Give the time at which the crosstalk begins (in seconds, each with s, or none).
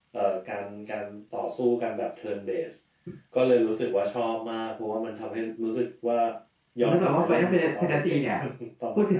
6.8 s